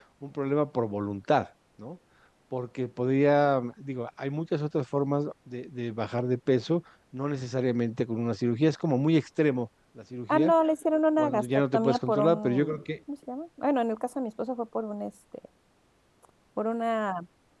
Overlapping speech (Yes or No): Yes